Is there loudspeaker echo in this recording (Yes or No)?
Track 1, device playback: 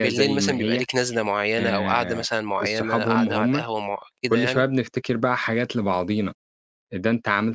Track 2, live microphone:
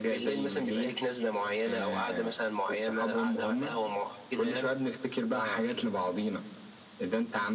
Yes